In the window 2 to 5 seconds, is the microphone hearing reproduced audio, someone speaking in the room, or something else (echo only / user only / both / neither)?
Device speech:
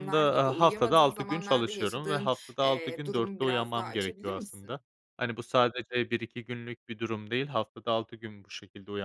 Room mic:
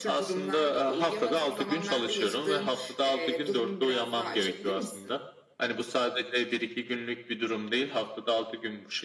echo only